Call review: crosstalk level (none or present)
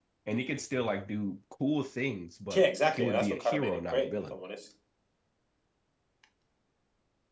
present